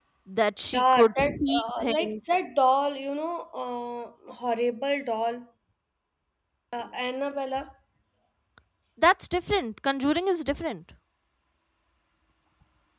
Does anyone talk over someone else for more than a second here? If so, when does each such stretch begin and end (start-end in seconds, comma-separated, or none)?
0.7-2.2